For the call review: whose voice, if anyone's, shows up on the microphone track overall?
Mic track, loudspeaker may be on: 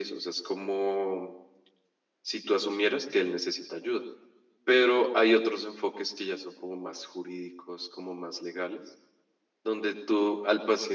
echo only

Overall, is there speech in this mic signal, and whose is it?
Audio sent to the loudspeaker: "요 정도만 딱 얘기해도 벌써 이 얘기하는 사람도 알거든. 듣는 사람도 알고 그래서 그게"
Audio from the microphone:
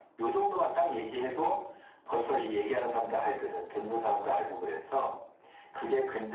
echo only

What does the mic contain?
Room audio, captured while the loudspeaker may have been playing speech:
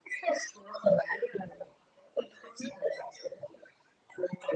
echo only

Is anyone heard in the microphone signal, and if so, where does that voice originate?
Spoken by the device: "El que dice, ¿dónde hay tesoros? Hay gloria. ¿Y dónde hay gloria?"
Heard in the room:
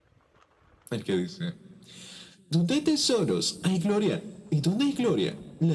echo only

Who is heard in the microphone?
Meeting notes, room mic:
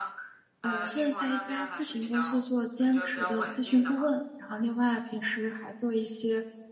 both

